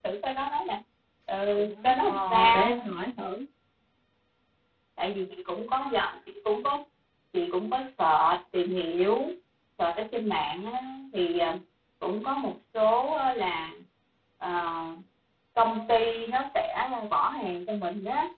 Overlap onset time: 2 s

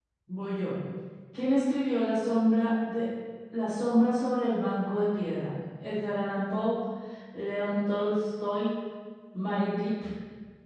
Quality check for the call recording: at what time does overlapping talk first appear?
none

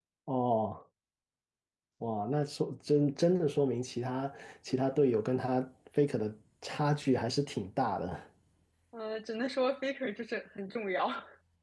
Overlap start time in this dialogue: none

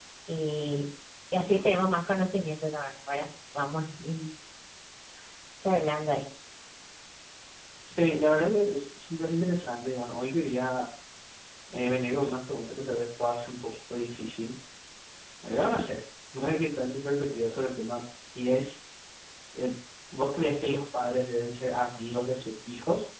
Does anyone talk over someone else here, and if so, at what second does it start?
none

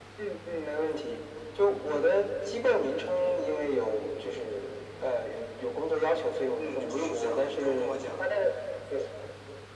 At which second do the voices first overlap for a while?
7 s

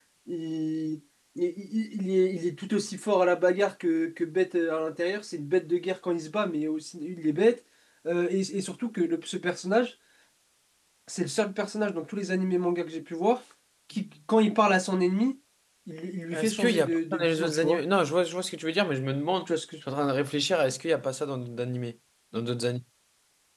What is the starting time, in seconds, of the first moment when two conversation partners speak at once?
16 s

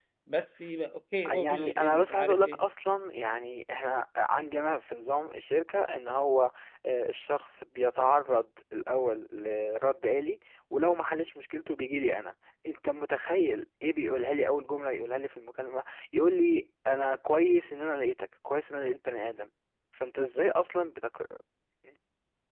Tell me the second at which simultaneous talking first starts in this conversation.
1 s

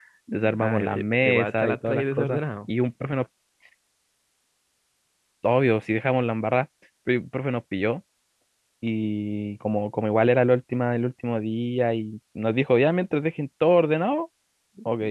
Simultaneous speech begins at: 1 s

